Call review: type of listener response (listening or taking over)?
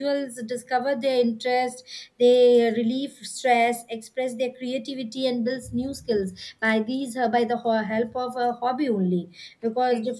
listening